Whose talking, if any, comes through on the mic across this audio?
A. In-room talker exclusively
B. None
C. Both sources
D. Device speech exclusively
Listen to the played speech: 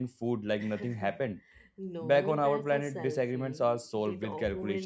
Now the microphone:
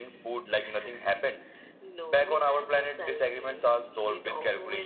D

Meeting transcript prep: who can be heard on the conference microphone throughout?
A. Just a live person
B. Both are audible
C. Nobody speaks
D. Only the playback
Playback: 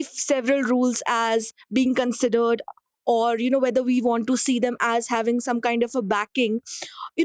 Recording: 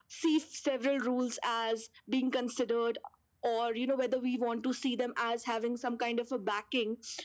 D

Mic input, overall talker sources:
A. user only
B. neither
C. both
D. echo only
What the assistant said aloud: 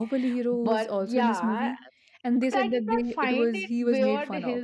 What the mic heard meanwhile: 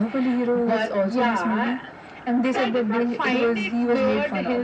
D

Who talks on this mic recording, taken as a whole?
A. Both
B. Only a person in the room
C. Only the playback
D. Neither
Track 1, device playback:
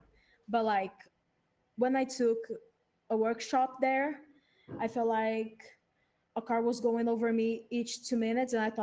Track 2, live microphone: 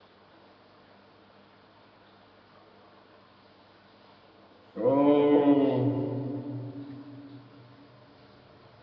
B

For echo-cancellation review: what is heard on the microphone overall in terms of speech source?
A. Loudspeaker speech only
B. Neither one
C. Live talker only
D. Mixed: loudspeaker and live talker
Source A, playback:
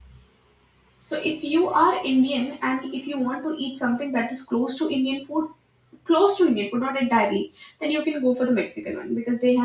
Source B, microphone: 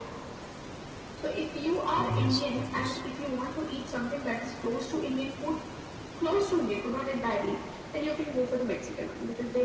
D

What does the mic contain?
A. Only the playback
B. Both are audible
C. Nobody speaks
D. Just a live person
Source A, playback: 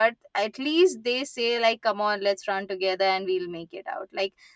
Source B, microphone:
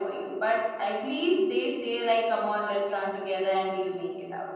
A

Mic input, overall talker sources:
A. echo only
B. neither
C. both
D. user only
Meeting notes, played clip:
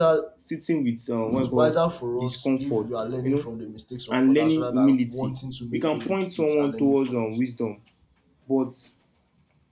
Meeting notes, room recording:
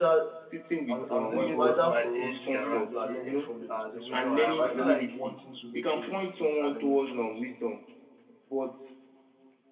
C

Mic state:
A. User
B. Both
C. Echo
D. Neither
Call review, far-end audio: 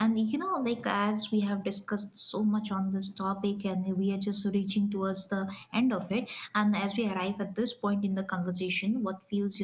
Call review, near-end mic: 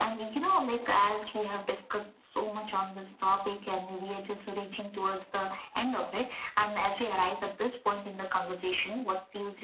C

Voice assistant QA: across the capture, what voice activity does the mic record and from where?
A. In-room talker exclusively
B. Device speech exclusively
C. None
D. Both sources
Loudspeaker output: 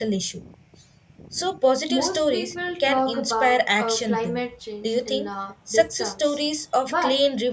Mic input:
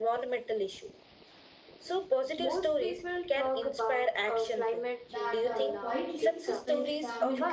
D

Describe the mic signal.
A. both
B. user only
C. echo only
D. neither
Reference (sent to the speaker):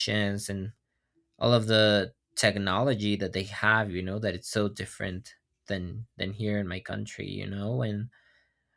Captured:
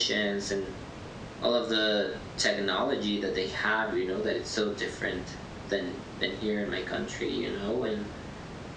C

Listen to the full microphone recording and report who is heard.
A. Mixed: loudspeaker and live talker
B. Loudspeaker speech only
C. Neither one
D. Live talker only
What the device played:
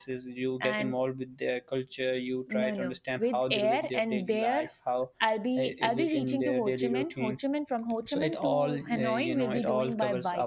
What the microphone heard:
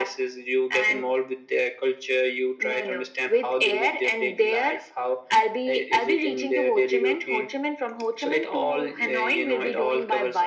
B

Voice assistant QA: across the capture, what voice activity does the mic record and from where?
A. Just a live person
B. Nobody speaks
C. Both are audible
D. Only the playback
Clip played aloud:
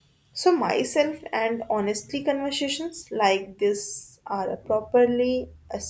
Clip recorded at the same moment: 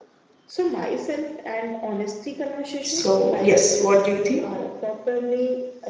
C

